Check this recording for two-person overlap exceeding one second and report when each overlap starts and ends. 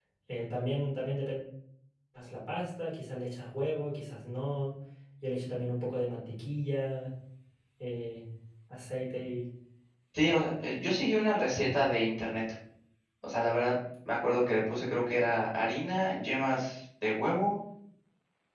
none

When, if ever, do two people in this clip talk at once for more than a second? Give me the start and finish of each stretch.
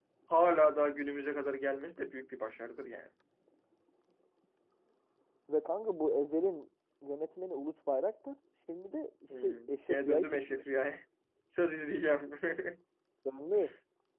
9.4-10.6

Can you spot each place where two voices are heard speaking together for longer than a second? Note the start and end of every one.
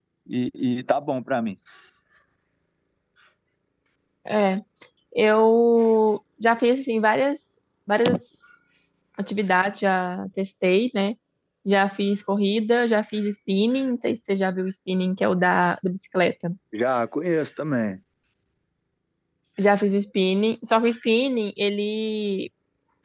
none

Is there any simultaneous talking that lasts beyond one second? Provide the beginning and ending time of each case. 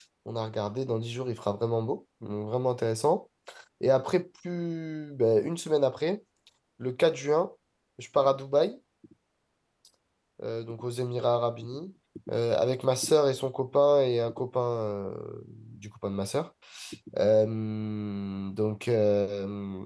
none

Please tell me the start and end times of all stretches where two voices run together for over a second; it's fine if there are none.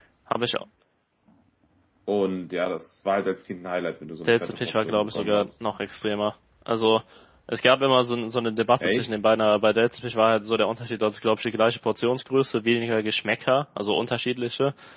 4.2-5.5

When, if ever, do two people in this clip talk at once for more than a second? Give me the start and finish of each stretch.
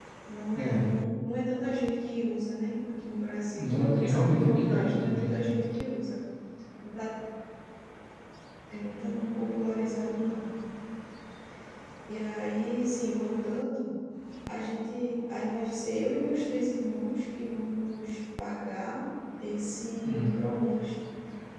3.6-5.4

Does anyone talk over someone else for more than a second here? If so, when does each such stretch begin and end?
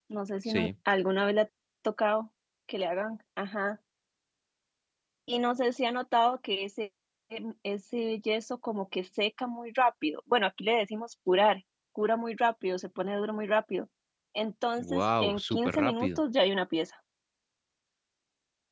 14.8-16.2

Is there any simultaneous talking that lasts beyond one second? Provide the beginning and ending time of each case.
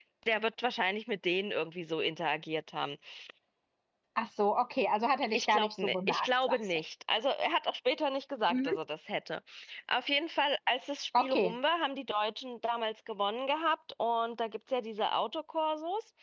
5.3-6.8

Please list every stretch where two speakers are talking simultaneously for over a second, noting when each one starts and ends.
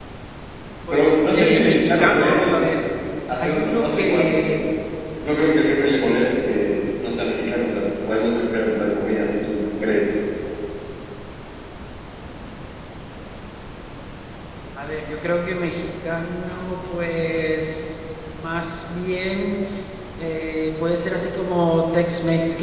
0.9-2.5, 3.3-4.6

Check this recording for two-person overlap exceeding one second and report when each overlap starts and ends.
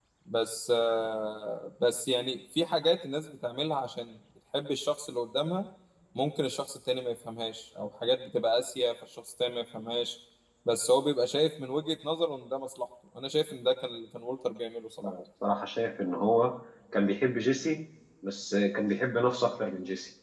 none

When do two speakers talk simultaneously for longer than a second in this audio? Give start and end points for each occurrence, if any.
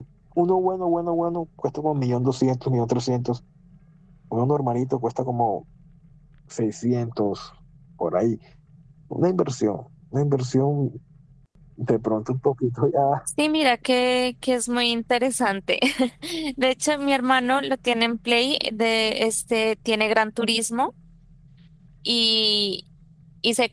none

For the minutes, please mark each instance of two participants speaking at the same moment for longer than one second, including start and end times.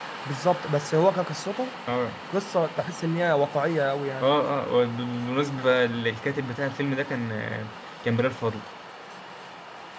none

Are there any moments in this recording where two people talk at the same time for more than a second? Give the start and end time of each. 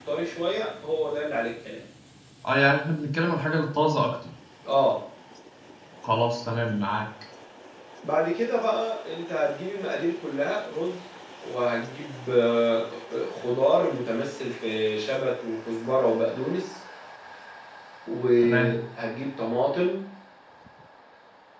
none

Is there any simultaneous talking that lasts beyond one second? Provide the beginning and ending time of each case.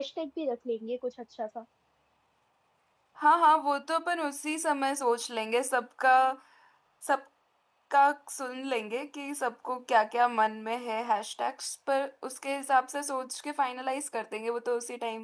none

